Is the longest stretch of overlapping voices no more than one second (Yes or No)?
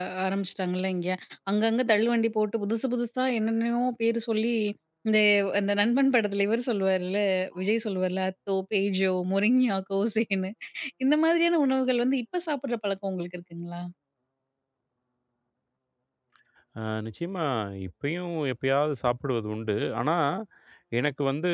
Yes